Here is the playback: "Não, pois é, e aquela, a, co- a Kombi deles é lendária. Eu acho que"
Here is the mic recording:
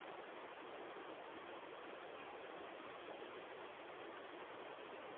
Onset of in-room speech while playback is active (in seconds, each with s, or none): none